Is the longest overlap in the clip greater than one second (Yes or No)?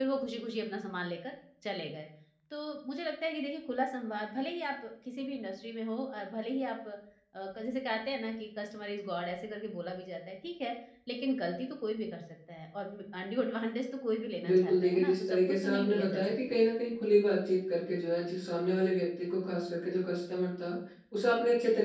Yes